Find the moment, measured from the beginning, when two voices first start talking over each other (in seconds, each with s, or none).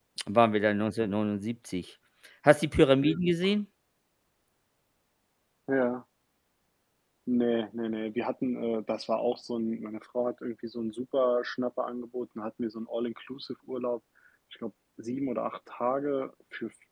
none